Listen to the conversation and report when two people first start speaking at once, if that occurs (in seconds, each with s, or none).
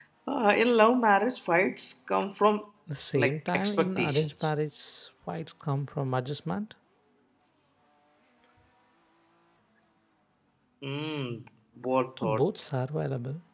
3.1 s